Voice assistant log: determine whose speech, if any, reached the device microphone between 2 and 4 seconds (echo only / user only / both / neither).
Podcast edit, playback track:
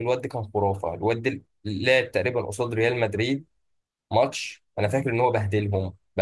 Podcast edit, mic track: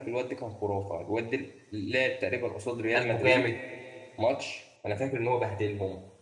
both